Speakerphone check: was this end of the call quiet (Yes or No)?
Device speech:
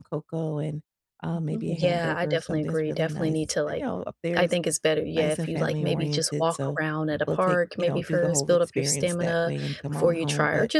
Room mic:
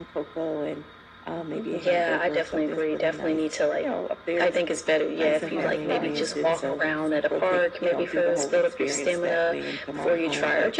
No